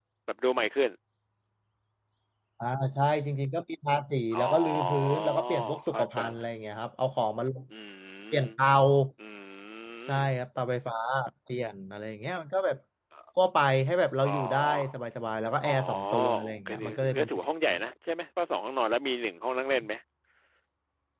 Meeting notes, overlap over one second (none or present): present